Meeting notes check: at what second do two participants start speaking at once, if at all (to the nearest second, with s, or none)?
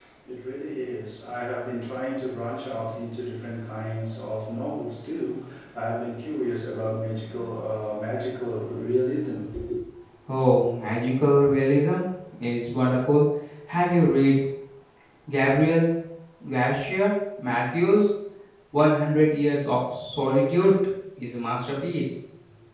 none